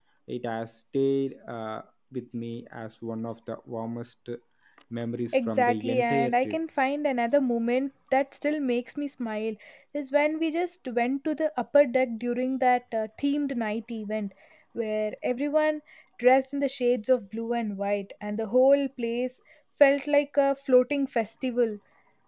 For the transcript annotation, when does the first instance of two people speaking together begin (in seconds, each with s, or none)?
5.3 s